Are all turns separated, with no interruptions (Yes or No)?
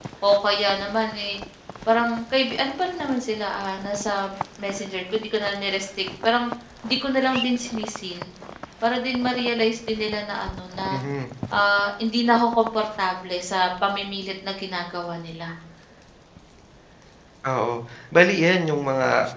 Yes